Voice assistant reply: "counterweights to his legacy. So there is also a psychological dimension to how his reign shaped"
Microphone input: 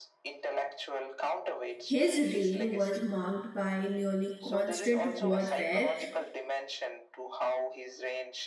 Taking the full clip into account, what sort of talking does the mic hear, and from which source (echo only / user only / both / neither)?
both